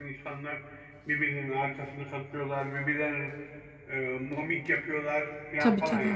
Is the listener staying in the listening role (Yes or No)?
Yes